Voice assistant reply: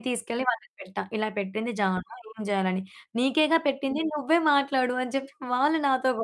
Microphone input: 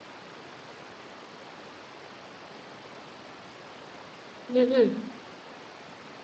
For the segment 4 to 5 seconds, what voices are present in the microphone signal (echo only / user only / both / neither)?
user only